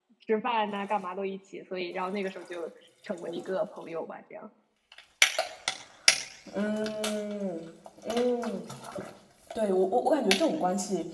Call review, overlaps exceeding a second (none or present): none